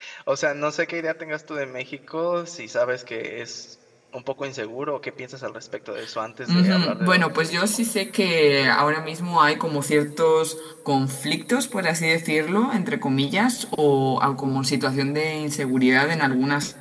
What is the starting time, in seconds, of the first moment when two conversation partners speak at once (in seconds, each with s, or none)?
6.5 s